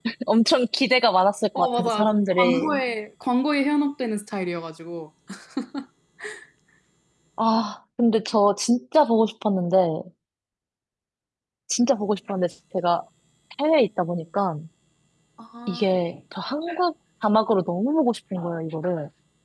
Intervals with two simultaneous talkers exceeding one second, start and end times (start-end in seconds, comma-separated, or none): 1.6-2.8